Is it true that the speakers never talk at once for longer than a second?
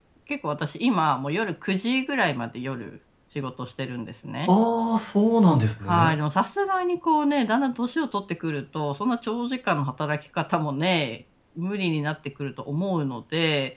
Yes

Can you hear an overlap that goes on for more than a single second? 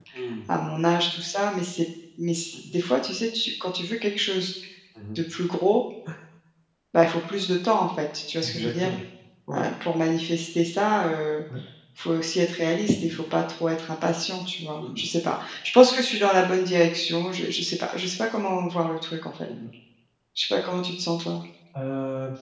No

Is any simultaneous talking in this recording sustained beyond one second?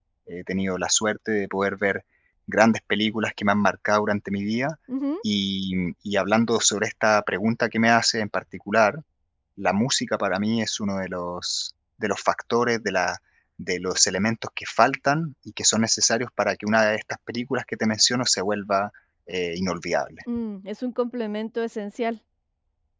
No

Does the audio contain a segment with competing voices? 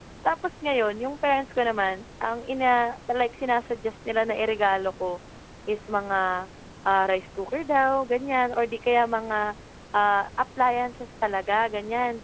No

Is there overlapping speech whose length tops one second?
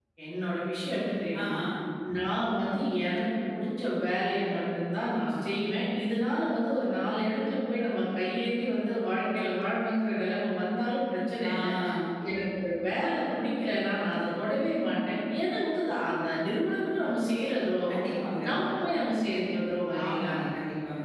No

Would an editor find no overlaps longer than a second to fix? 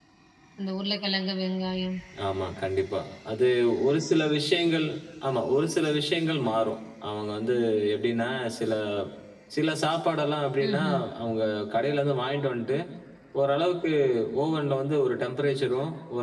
Yes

